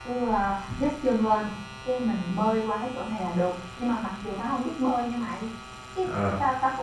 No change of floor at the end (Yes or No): Yes